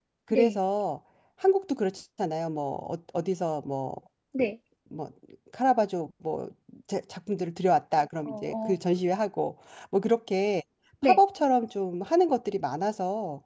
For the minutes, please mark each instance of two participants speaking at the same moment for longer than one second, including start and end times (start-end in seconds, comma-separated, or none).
none